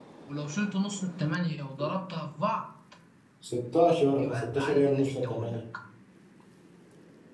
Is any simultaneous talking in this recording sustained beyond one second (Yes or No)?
Yes